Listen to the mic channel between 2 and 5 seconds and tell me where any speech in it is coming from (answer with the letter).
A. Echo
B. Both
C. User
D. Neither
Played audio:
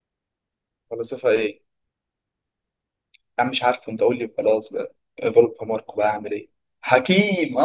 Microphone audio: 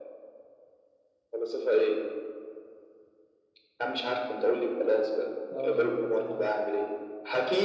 A